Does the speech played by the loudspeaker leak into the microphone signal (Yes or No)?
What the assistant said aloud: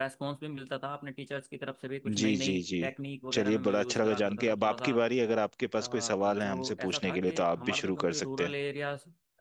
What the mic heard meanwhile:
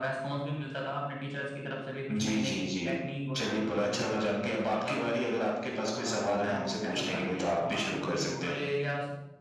Yes